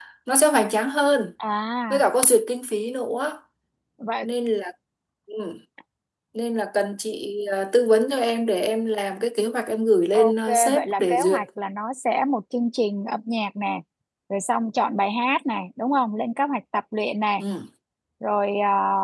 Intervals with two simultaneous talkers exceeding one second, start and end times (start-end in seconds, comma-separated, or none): 10.1-11.4